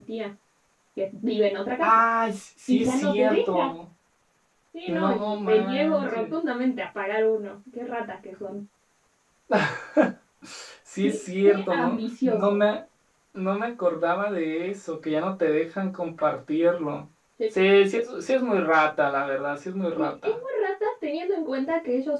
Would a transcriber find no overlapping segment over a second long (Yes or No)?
No